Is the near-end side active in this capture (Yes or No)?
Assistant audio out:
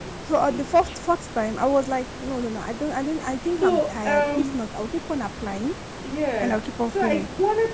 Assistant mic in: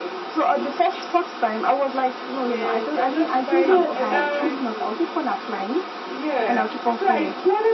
Yes